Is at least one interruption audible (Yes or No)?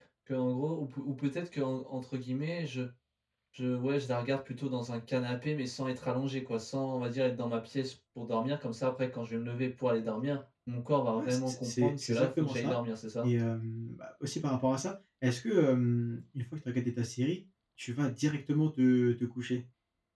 Yes